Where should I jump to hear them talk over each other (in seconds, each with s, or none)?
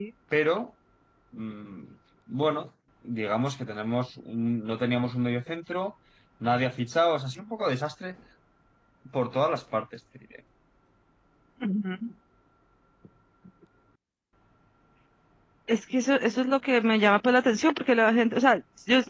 none